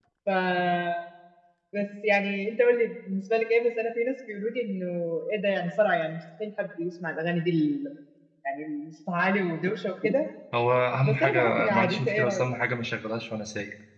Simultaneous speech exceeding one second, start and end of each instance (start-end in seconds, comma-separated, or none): 11.0-12.5